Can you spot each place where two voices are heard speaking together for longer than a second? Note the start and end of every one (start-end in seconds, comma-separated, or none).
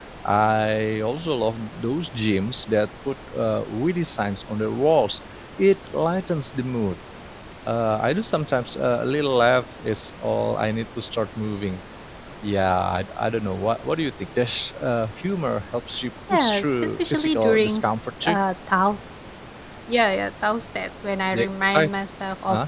16.3-17.9